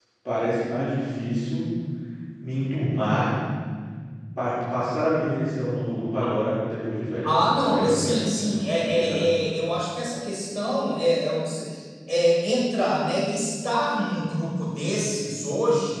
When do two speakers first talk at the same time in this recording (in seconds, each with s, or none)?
7.2 s